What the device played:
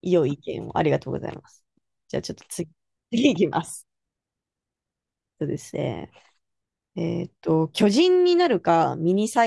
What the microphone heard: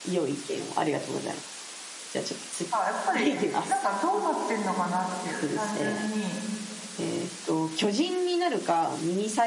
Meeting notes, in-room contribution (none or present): present